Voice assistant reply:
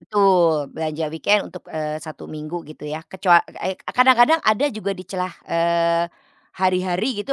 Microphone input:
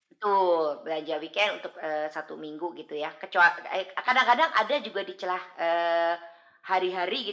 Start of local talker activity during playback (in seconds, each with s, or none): none